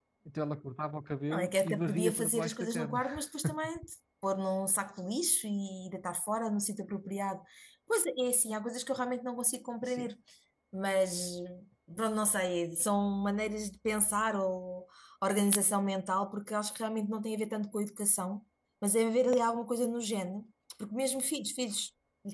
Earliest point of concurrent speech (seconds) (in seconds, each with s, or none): 1.3 s